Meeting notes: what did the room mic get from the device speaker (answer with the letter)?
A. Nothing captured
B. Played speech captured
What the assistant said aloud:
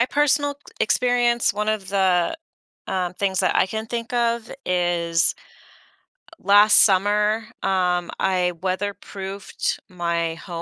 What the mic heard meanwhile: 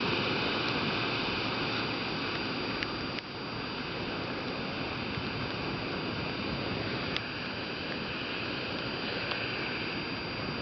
A